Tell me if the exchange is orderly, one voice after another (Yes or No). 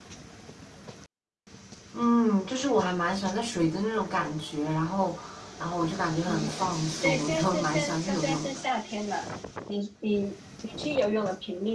No